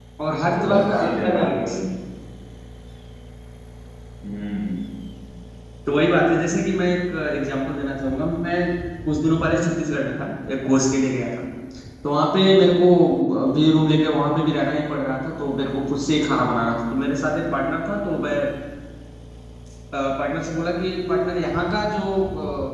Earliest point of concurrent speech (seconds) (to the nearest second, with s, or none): 1 s